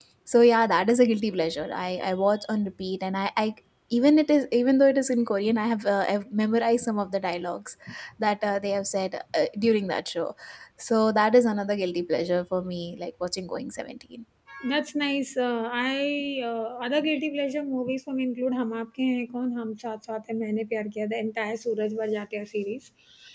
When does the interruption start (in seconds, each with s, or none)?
none